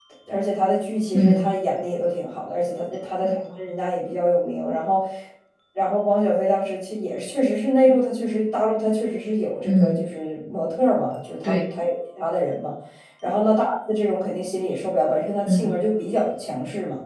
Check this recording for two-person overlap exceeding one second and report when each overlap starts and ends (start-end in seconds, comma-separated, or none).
none